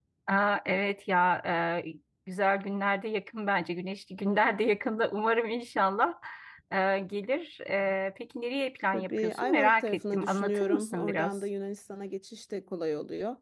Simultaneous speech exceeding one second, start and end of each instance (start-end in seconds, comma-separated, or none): 8.9-11.4